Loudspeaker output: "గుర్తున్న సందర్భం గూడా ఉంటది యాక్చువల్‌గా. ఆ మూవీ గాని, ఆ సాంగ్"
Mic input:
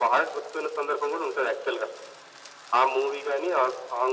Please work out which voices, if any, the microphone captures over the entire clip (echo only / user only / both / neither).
echo only